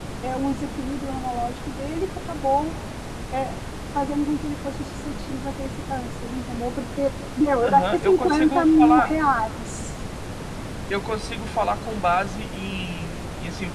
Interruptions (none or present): present